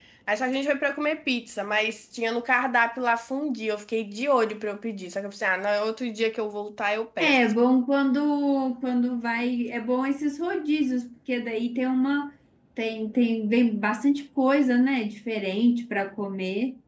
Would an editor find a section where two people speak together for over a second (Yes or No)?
No